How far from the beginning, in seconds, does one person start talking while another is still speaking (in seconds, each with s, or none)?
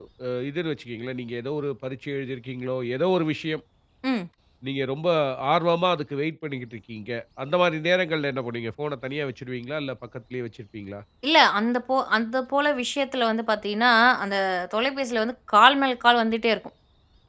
none